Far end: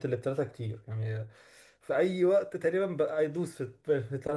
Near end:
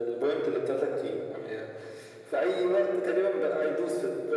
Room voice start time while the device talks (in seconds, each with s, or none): none